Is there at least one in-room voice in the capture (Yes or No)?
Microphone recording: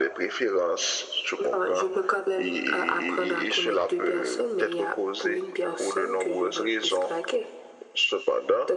No